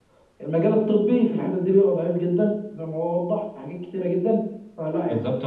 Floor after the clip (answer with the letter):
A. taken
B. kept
A